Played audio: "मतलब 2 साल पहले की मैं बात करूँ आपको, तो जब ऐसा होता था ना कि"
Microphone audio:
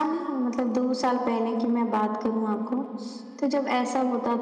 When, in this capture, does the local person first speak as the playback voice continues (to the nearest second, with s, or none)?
none